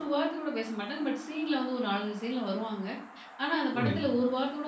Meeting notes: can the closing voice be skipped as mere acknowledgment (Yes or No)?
Yes